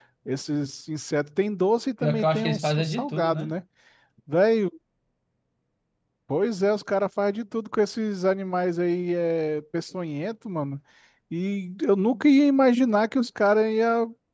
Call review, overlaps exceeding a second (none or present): present